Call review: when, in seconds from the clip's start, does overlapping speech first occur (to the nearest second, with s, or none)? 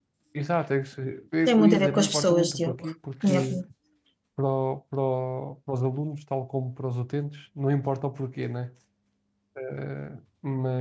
1 s